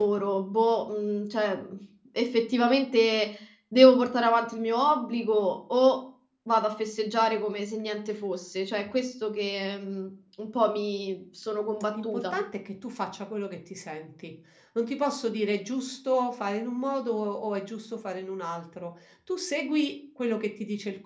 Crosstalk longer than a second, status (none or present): none